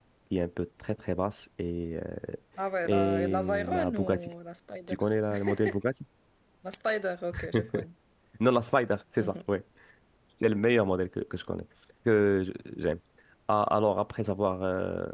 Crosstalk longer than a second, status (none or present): present